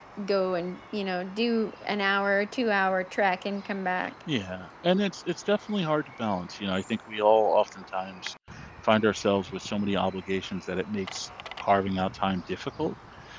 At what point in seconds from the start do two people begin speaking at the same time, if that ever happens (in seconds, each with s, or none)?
none